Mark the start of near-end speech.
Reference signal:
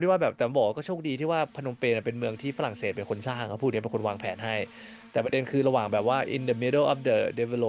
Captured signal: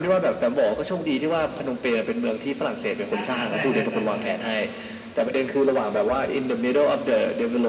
3.1 s

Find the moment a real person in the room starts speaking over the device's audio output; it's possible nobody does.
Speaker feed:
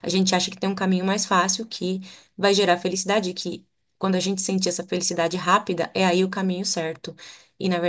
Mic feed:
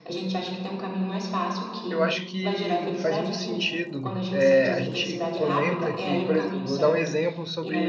1.9 s

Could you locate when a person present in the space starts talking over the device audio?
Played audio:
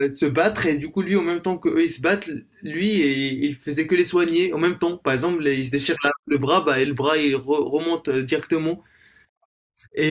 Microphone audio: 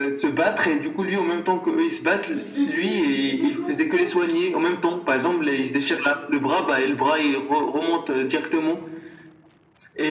2.2 s

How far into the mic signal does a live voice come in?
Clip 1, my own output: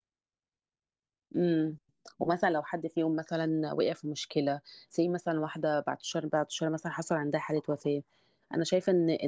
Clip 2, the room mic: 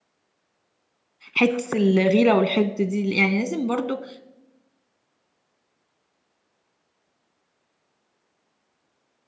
1.4 s

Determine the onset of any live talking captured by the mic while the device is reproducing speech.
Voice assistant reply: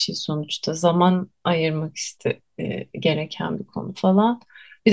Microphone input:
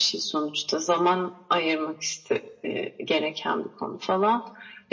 none

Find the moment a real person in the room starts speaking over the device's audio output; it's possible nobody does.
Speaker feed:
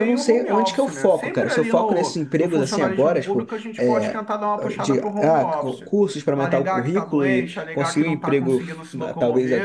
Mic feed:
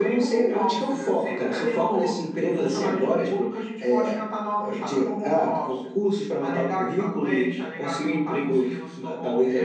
none

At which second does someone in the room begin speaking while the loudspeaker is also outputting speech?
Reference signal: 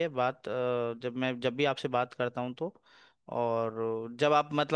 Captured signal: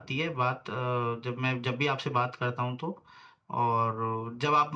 none

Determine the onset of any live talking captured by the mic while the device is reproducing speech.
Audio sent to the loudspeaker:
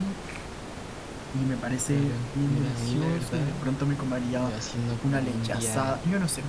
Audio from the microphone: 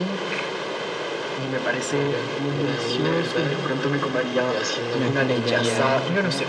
4.9 s

